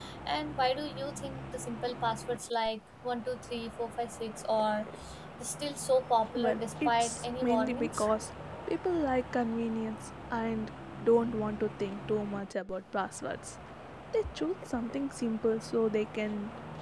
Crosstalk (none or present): present